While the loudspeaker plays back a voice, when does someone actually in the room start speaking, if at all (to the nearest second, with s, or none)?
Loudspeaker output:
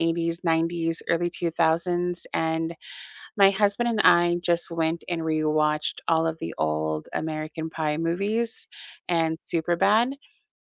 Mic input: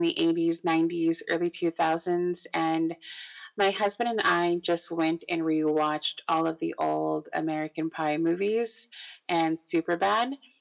none